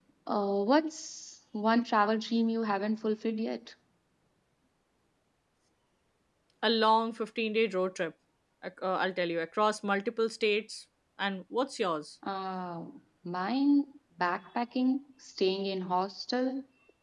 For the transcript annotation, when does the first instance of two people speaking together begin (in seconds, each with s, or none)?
none